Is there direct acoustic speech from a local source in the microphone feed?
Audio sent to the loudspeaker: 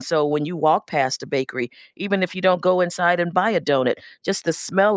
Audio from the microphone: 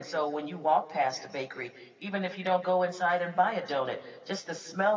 No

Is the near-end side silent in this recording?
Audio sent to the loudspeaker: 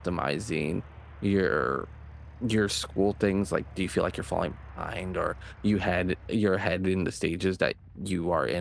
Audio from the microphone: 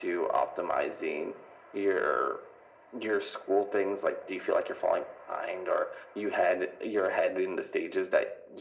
Yes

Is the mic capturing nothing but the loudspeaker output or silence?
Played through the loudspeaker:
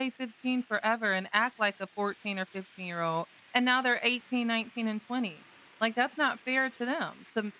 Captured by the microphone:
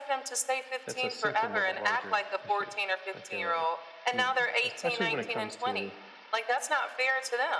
No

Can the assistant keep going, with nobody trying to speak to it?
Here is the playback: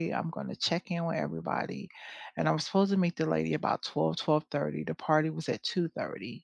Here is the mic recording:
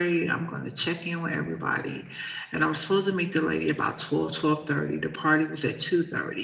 Yes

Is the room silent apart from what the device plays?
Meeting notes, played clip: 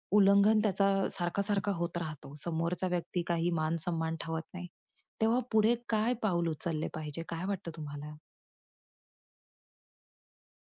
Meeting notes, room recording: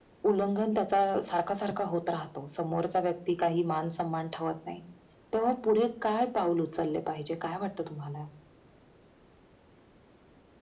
Yes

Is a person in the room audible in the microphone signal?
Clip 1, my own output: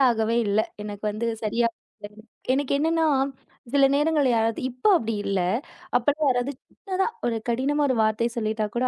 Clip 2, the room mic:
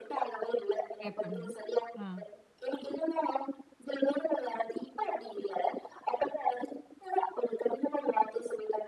Yes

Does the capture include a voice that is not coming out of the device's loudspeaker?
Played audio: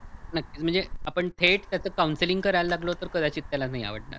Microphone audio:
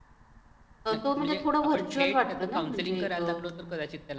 Yes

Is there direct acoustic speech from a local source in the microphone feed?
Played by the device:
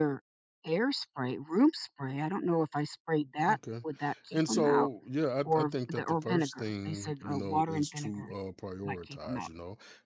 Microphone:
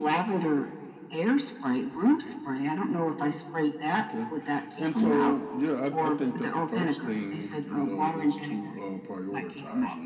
No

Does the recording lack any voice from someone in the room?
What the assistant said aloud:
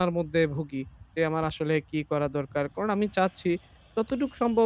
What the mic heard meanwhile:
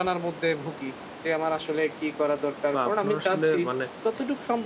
No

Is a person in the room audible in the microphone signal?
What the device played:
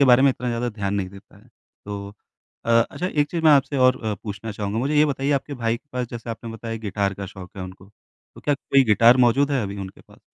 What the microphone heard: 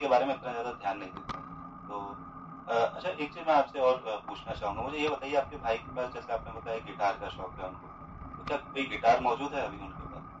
No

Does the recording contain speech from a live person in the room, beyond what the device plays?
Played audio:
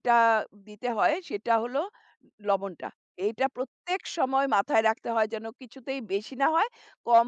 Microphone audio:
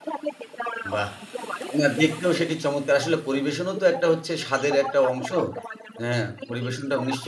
Yes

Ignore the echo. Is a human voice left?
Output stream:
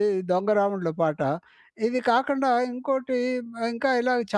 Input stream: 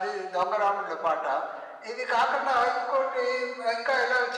No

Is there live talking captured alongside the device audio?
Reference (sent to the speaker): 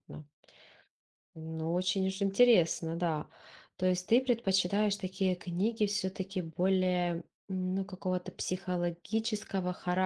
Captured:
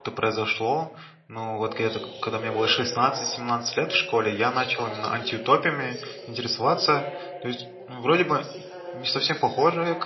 Yes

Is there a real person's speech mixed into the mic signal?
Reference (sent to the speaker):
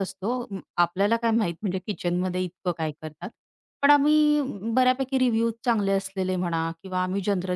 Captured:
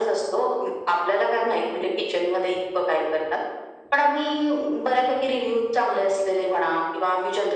No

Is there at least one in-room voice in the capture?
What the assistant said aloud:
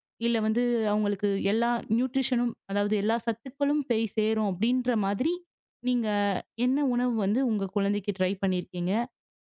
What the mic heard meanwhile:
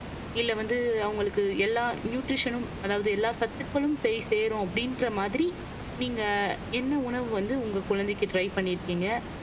No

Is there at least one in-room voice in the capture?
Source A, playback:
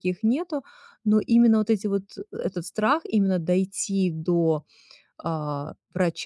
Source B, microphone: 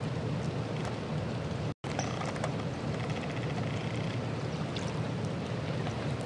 No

